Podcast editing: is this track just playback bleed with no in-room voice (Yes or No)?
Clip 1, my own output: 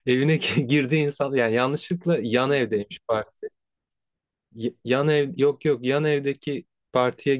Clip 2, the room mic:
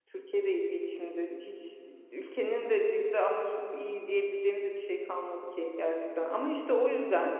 No